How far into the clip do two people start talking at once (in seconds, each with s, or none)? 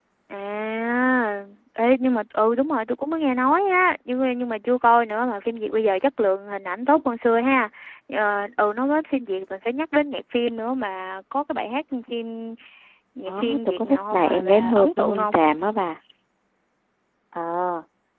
13.2 s